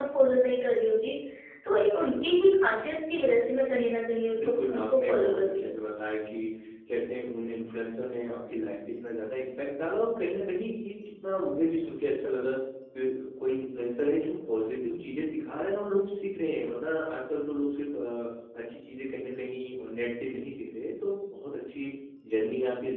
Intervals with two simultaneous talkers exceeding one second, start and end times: 4.4-5.7

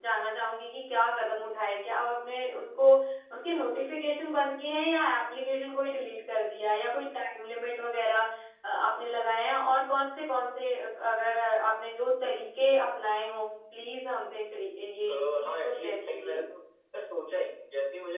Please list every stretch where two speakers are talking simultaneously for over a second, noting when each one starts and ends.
15.1-16.4

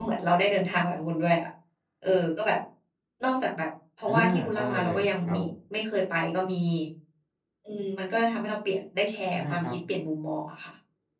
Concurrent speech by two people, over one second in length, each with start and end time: 4.1-5.5

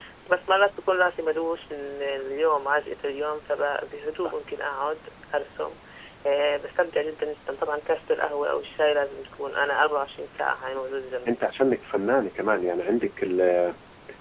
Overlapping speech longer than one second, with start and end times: none

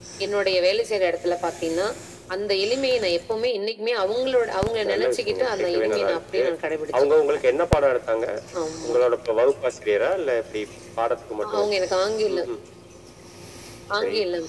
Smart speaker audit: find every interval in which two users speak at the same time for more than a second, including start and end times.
4.9-6.4

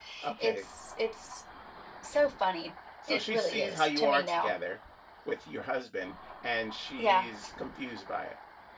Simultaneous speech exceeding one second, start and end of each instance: 3.1-4.5

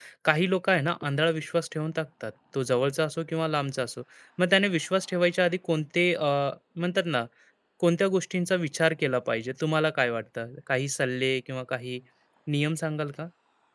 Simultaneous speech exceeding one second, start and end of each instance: none

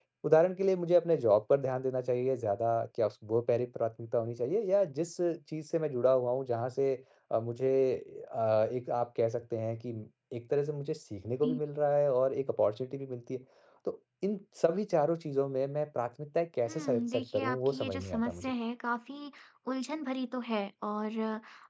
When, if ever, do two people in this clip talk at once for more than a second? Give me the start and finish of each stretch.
16.7-18.5

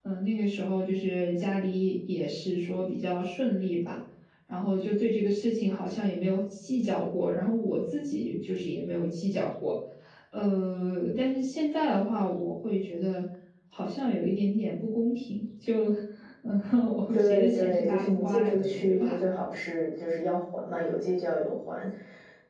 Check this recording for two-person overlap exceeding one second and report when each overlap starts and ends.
17.1-19.2

